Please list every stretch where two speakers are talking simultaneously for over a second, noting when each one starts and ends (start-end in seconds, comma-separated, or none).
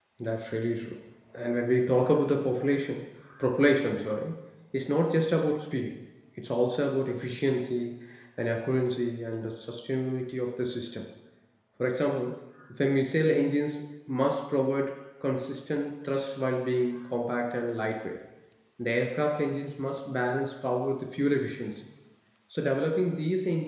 none